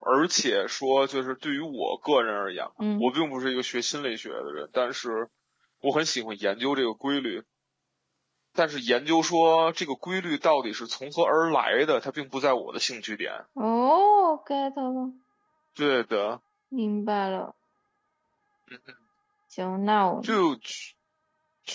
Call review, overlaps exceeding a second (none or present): none